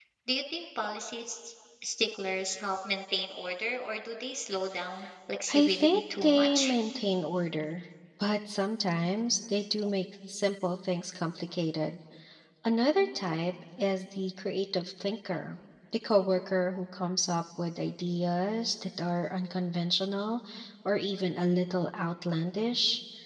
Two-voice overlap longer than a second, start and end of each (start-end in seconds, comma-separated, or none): 5.5-6.7